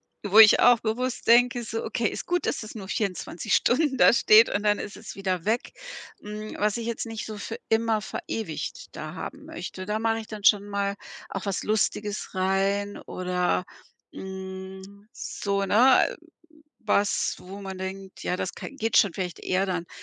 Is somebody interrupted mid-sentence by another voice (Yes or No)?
No